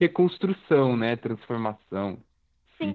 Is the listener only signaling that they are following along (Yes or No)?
No